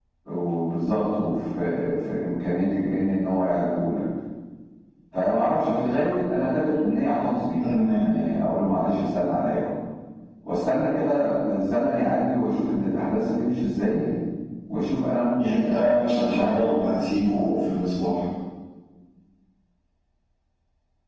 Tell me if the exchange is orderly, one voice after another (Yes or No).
No